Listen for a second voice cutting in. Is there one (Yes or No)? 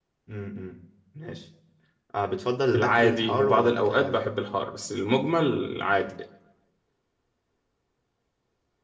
Yes